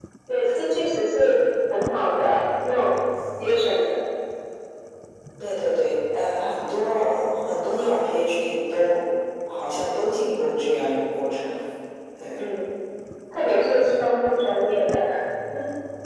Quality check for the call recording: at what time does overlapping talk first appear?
none

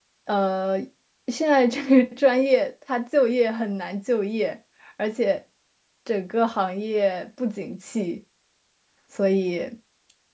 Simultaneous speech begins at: none

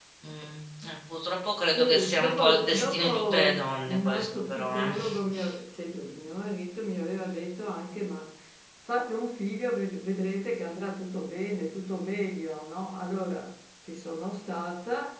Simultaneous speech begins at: 2 s

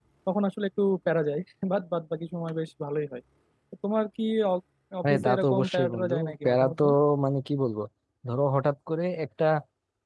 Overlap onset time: 5 s

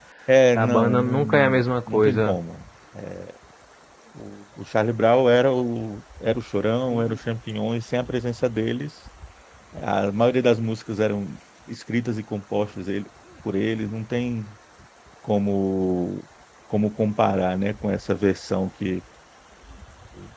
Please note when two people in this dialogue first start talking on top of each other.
1 s

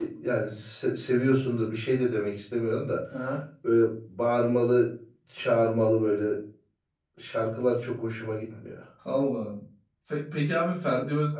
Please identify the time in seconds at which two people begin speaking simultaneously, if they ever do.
none

